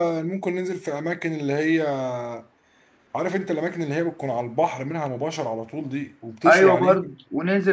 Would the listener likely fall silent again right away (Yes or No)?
No